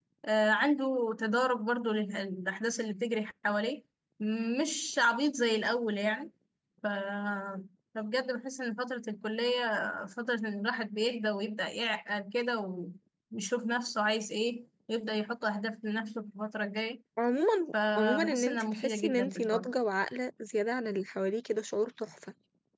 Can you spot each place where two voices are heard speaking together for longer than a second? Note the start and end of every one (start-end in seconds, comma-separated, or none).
17.9-19.7